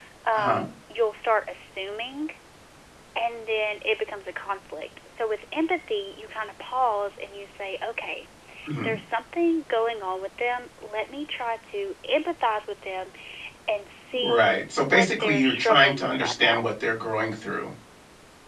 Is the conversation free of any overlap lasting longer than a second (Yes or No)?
No